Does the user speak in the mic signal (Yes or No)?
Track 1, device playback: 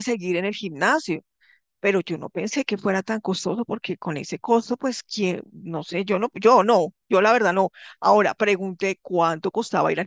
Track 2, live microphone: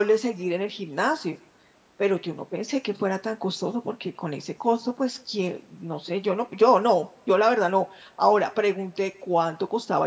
No